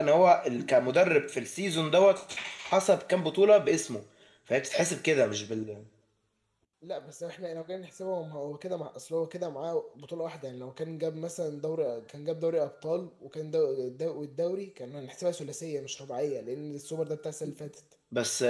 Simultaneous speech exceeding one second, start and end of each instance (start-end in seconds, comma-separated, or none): none